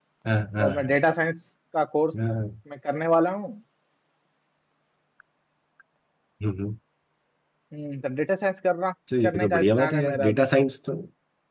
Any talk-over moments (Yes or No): Yes